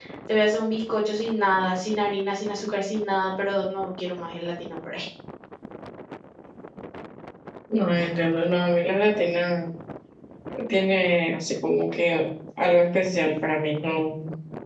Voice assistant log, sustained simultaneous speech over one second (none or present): none